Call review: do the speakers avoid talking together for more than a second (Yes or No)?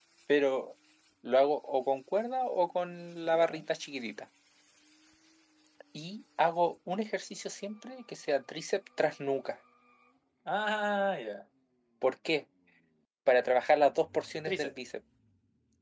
Yes